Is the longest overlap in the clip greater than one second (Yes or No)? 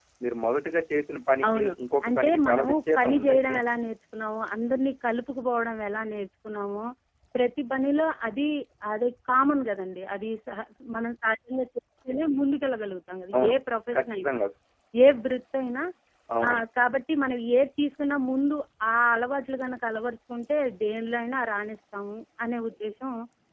Yes